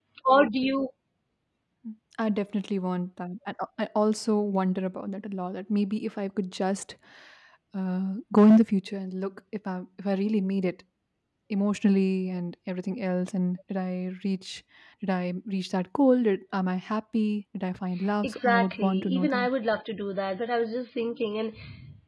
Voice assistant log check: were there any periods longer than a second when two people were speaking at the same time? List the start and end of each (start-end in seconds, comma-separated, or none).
18.2-19.5